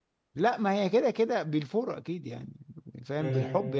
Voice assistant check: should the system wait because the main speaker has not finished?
Yes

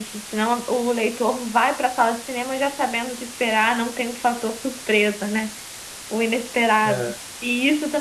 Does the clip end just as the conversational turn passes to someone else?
No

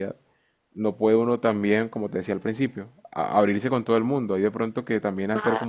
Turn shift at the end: No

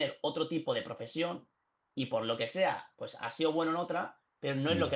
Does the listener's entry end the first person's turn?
No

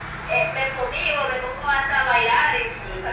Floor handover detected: Yes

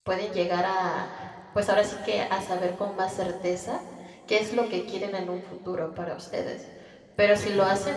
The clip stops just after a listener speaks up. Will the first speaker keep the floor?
Yes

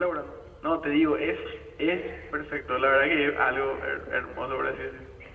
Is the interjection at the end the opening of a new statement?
Yes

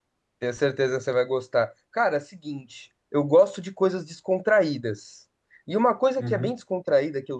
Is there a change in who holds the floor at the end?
No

